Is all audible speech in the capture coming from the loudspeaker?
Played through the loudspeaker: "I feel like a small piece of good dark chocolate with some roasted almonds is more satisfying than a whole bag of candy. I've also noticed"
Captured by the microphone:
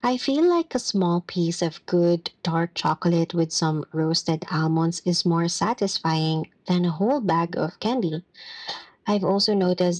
Yes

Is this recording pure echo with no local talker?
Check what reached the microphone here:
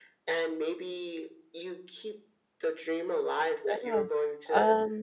No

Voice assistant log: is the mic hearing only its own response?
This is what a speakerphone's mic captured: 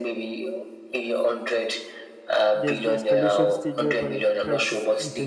No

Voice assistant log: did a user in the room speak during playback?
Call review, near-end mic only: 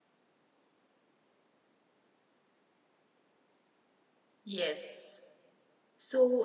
Yes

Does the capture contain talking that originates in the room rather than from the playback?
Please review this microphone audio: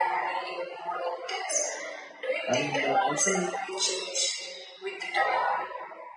Yes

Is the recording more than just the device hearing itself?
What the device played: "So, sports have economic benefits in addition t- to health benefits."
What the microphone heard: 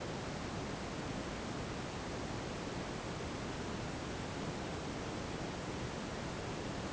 No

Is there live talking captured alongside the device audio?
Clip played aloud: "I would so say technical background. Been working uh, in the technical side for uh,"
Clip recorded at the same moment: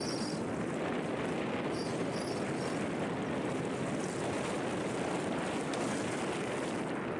No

